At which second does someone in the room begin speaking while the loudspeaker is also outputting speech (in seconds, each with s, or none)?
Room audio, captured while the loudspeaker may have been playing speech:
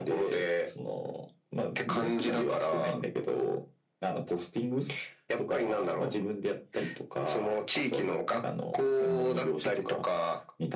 none